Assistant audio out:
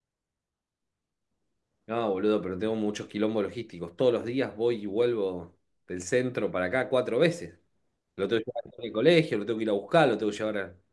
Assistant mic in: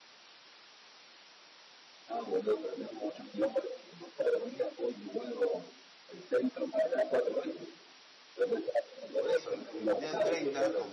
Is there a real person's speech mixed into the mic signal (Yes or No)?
Yes